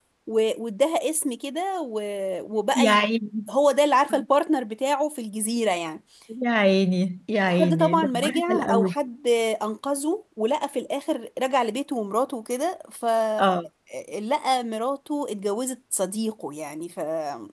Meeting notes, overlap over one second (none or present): present